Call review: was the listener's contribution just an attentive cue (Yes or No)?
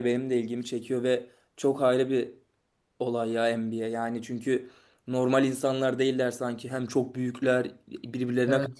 No